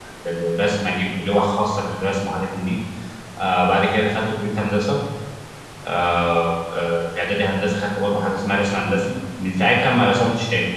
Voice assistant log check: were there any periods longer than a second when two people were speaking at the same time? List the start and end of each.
none

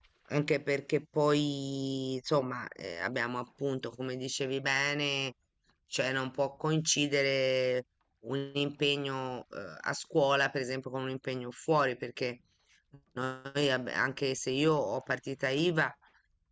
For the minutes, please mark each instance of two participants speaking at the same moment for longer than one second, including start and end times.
none

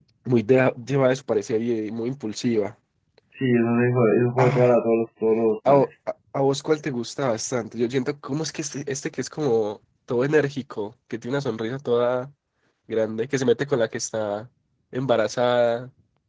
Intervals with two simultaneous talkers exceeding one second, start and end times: none

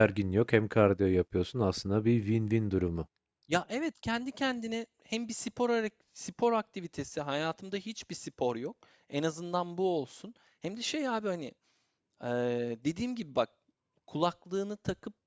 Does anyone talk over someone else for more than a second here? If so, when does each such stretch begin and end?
none

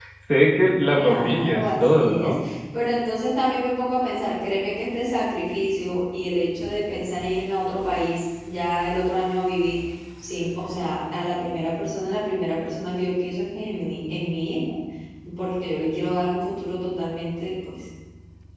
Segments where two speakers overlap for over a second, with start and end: 0.9-2.3

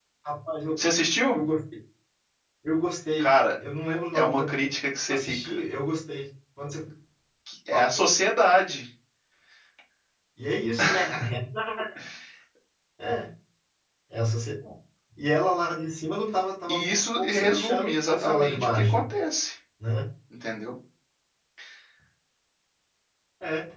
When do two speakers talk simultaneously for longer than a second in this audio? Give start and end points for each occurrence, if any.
16.7-19.0

